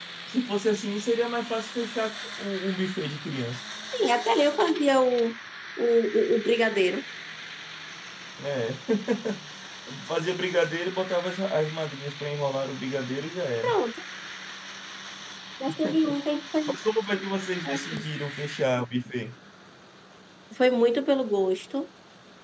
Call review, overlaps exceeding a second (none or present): none